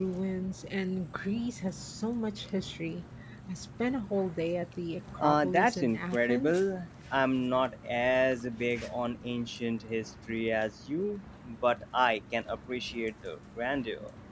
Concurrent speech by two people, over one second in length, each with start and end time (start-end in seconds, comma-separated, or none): 5.2-6.5